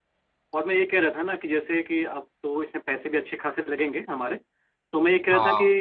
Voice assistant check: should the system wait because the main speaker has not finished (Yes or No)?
Yes